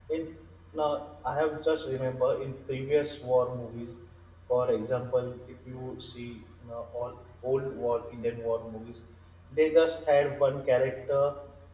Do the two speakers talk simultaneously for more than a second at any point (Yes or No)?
No